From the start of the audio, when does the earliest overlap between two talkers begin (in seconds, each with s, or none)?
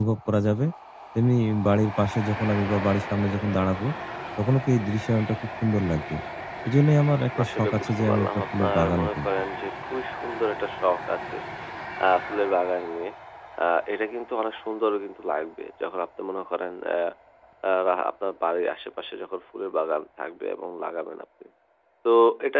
7.4 s